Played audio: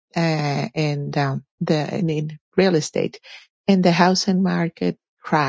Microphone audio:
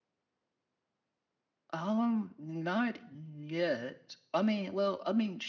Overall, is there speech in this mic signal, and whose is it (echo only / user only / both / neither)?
user only